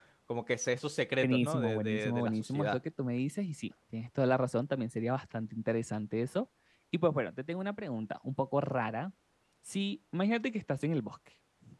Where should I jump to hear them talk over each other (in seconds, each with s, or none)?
1.2 s